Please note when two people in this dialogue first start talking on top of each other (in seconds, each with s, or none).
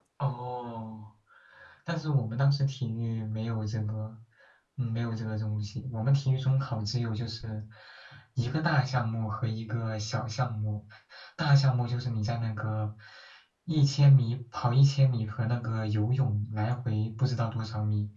none